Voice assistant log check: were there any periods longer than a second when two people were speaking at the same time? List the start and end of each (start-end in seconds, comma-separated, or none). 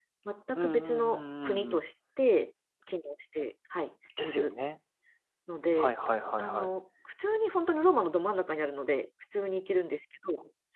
0.6-1.8